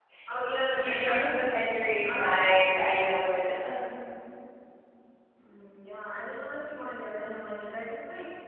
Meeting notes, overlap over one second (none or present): none